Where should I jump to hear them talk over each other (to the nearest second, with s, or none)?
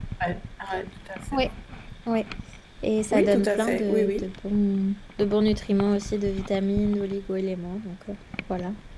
3 s